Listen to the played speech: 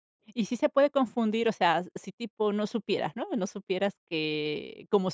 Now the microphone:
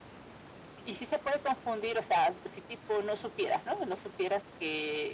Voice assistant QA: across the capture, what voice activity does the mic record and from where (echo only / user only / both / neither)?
echo only